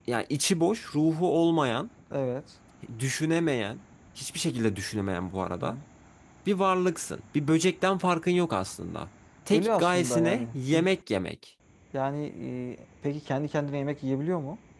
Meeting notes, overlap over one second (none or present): present